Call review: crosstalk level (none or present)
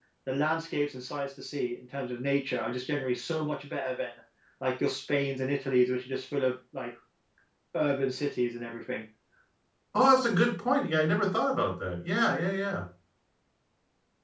none